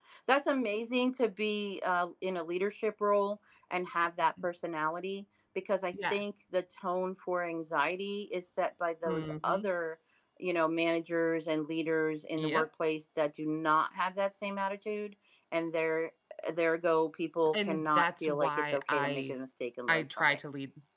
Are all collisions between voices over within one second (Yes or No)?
No